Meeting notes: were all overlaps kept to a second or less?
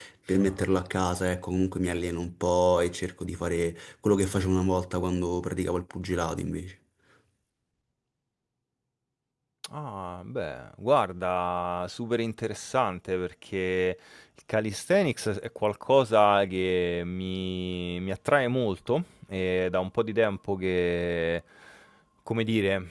Yes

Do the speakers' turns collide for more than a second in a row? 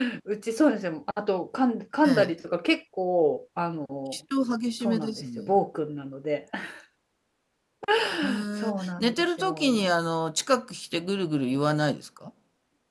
Yes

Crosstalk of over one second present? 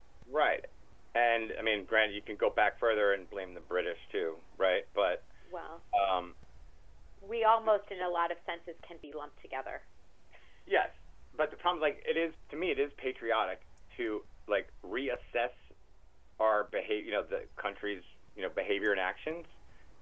No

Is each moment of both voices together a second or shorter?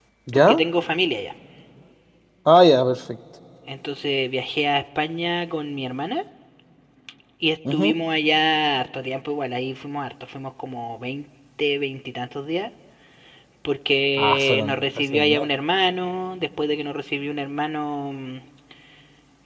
No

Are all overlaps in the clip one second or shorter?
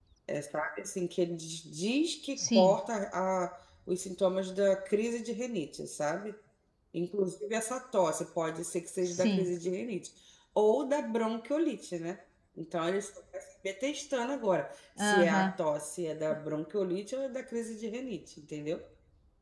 Yes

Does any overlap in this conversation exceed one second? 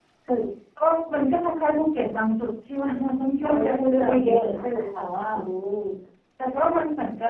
Yes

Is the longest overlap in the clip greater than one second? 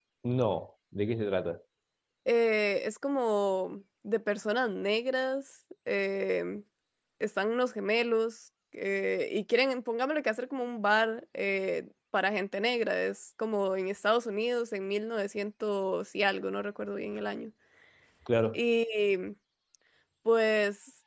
No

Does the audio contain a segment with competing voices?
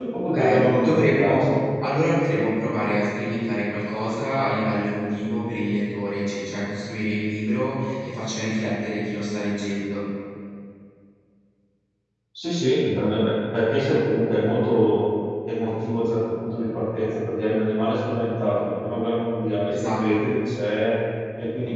Yes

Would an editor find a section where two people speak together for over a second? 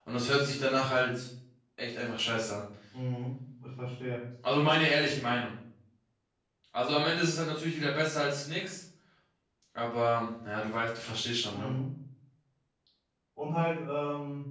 No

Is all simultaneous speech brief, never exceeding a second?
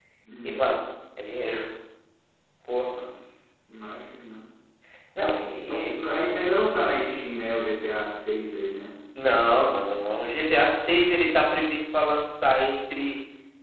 Yes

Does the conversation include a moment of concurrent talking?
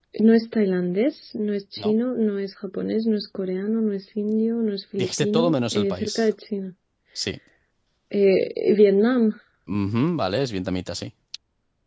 Yes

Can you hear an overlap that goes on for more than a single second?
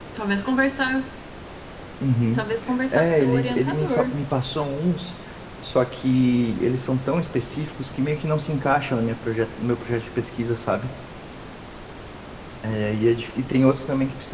Yes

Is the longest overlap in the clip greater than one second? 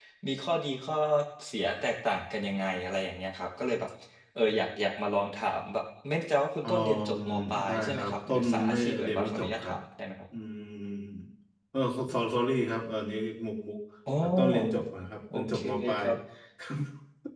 Yes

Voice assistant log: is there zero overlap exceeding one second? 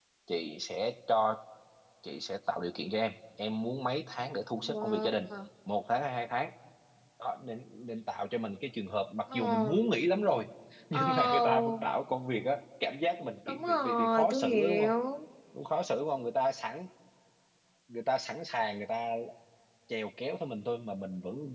No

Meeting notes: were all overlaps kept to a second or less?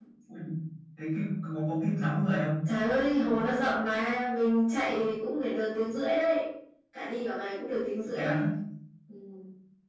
Yes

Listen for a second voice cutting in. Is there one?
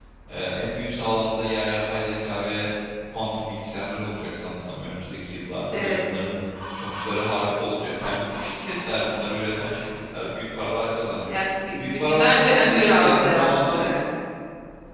Yes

